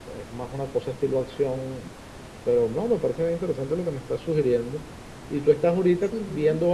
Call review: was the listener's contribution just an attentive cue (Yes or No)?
Yes